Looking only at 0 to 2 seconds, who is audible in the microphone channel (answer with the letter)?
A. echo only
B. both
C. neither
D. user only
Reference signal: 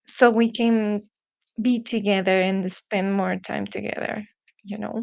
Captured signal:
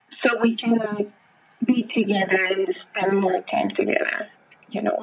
A